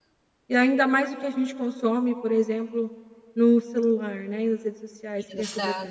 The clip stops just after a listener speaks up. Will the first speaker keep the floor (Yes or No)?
Yes